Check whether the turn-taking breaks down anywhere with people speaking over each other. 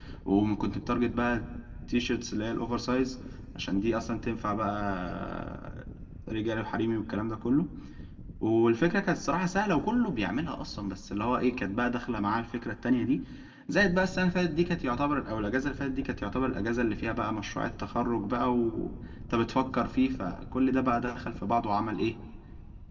No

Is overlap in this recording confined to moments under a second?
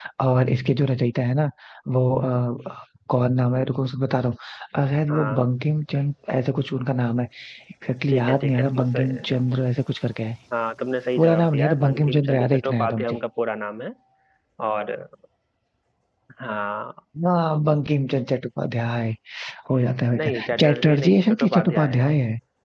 No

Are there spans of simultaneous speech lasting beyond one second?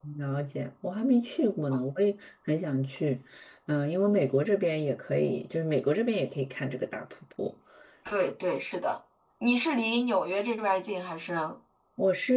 No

